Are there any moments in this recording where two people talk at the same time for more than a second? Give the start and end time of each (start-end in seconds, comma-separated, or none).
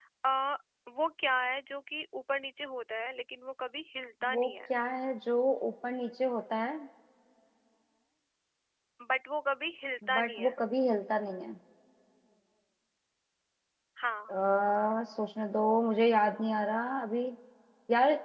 none